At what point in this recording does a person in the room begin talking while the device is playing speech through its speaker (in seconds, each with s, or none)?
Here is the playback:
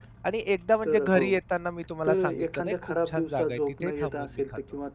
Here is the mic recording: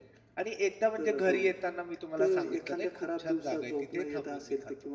none